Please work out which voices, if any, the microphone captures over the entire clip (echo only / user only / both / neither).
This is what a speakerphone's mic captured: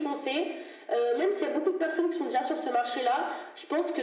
echo only